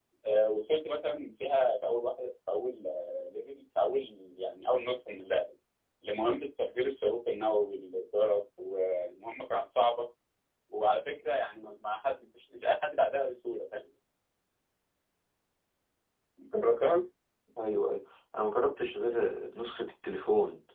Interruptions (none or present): none